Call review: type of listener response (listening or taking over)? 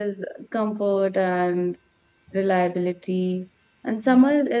listening